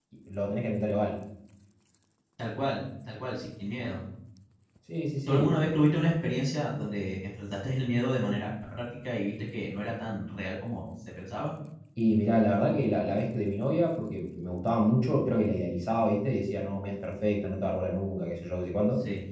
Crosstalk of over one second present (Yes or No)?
No